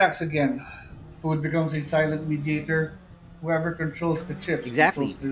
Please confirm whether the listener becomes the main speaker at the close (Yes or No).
Yes